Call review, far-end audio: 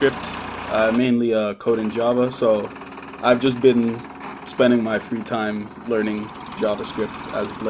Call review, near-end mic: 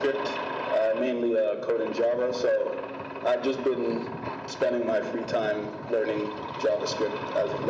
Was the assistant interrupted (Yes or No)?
No